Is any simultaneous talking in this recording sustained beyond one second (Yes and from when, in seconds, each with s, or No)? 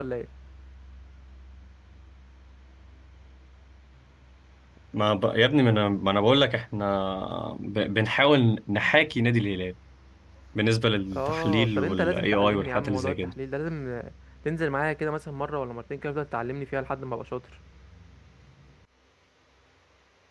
Yes, from 11.1 s